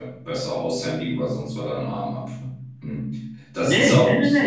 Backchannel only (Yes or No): No